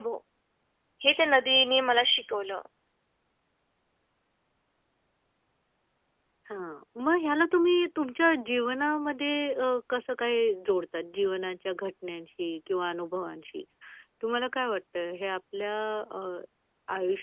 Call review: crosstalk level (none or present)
none